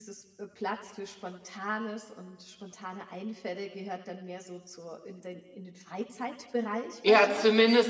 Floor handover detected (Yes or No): Yes